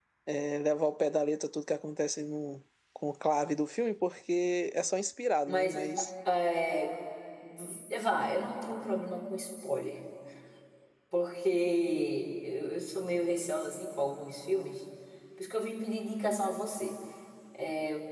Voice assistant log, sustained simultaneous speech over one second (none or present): none